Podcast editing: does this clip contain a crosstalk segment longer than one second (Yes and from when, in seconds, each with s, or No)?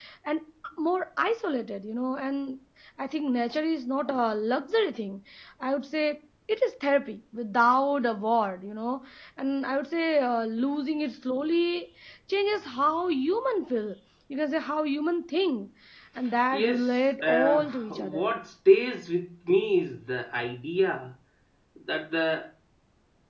Yes, from 16.5 s